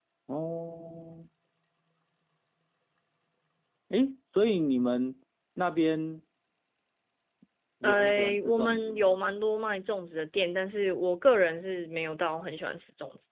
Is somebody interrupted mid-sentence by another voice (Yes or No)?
Yes